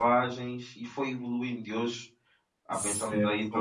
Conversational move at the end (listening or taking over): taking over